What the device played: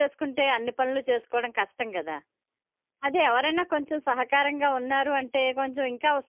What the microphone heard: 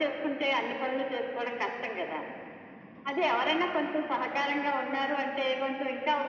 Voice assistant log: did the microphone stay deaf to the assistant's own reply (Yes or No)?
No